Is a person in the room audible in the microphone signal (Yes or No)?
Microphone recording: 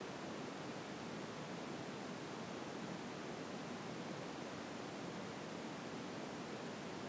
No